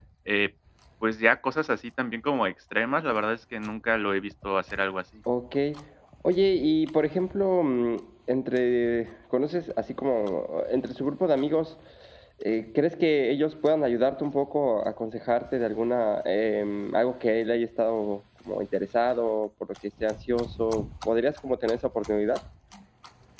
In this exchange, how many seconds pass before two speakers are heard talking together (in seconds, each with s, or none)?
none